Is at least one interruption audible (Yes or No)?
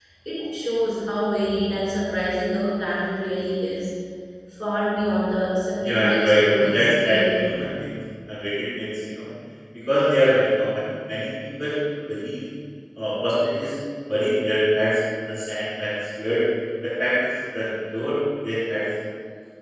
Yes